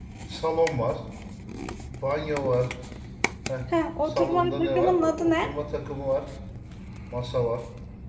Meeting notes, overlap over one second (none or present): present